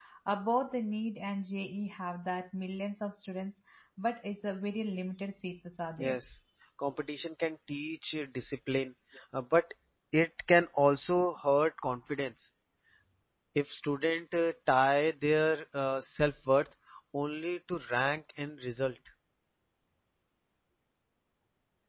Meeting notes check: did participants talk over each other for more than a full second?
No

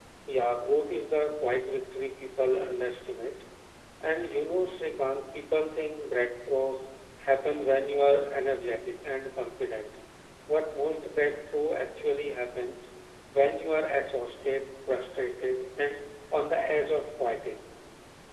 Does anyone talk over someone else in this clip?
No

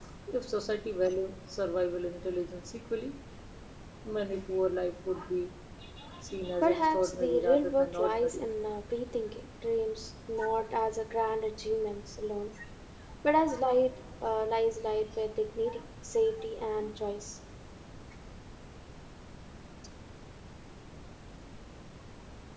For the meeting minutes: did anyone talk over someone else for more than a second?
Yes, from 6.6 s

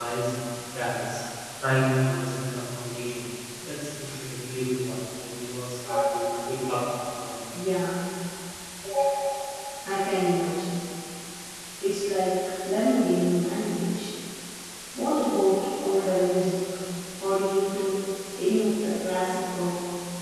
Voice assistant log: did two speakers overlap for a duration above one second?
No

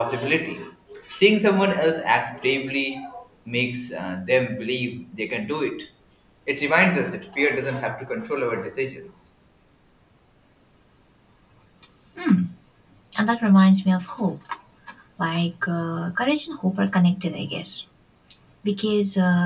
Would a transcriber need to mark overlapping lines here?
No

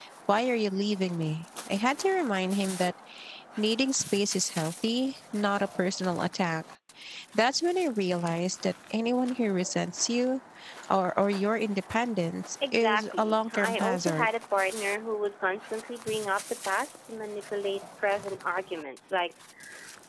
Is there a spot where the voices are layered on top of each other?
Yes, from 12.6 s

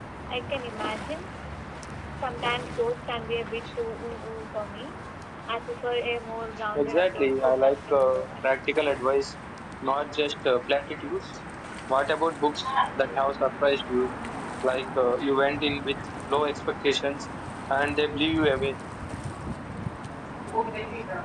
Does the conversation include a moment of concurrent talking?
Yes, from 6.8 s

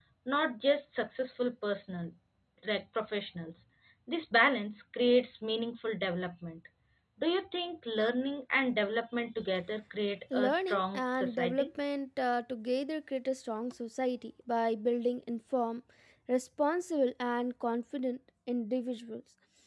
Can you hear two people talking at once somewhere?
Yes, from 10.3 s

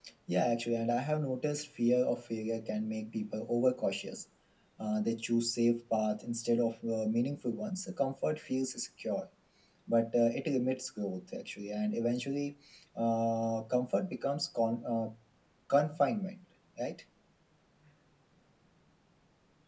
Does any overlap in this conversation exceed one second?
No

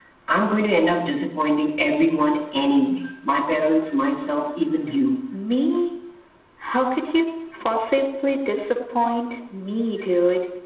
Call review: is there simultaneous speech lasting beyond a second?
No

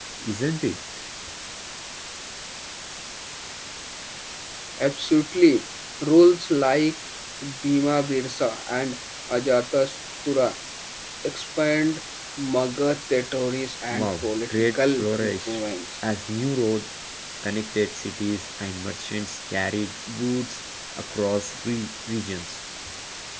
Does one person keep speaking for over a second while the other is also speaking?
Yes, from 13.9 s

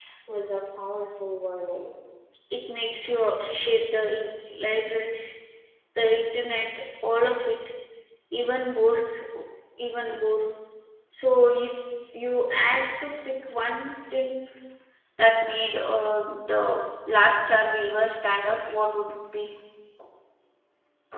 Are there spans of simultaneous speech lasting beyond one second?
No

